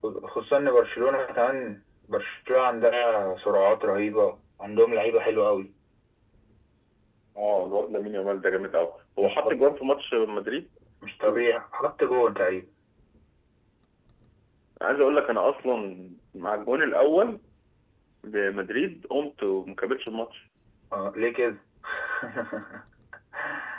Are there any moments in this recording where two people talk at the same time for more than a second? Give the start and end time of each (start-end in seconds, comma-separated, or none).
none